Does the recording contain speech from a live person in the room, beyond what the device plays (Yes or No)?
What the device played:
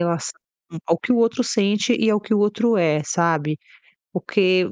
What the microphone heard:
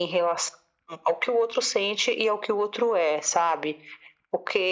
No